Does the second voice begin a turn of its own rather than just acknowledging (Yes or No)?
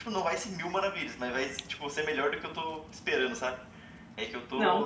Yes